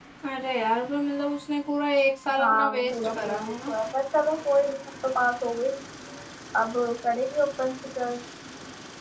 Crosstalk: present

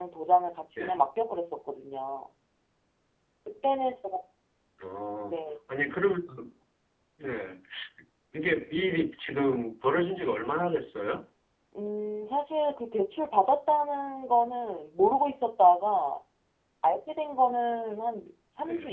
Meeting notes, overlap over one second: none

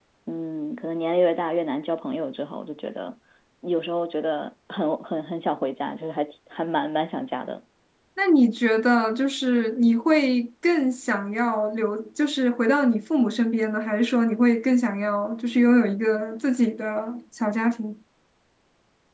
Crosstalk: none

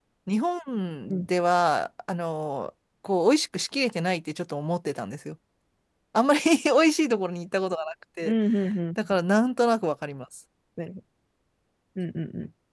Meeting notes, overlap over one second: none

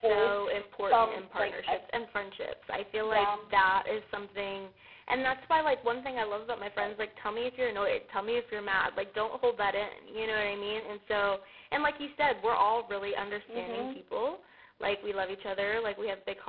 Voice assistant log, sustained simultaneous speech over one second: present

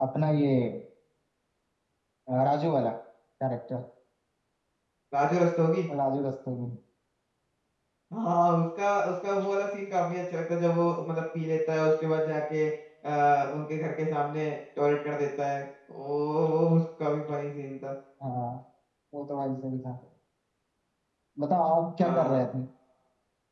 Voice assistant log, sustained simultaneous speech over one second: none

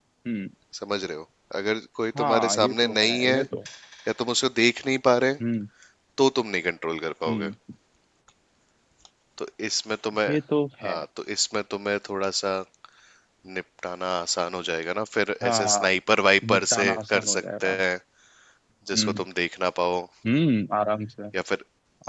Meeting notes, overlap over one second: present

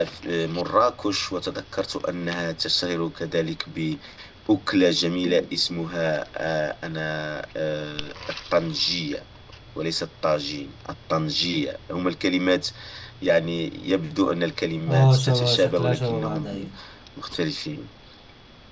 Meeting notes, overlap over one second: present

